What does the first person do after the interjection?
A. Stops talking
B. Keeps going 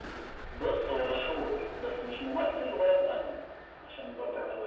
A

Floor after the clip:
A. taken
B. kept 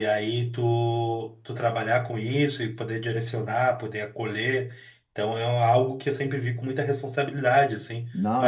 A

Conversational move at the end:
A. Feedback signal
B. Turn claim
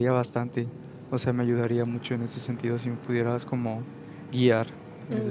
B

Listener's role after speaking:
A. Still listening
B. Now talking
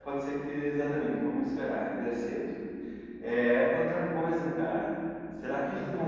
A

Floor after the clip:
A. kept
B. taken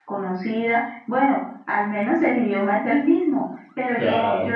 A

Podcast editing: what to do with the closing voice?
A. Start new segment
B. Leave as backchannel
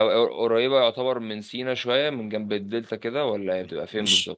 A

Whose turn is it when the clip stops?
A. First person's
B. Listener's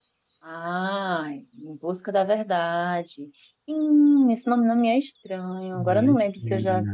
A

